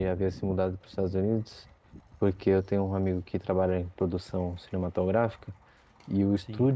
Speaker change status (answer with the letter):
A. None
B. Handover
A